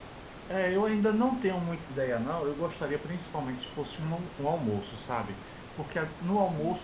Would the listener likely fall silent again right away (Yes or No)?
Yes